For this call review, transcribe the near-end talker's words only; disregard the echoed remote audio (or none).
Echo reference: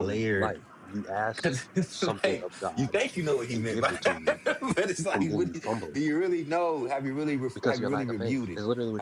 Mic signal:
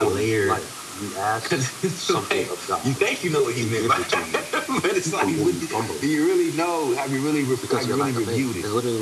none